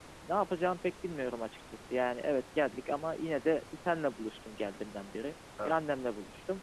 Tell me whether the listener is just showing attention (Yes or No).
Yes